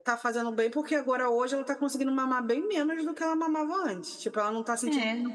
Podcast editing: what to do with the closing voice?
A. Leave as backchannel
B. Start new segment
A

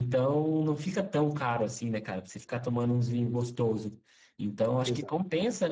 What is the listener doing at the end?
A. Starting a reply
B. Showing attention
B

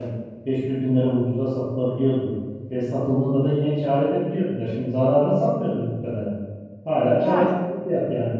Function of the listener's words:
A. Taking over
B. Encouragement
B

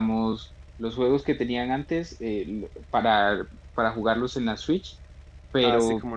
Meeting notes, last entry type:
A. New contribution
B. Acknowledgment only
A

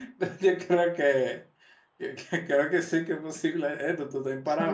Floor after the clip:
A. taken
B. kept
A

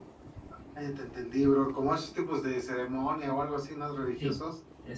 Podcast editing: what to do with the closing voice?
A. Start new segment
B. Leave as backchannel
A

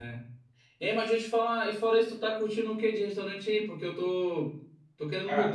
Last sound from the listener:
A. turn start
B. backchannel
B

